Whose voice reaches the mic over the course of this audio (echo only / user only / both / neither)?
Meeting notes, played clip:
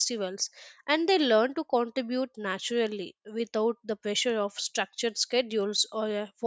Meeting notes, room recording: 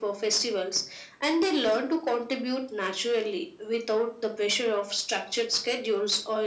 echo only